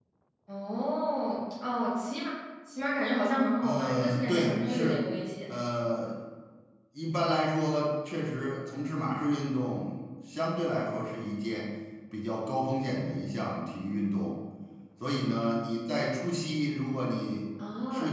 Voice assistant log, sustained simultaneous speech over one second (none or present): present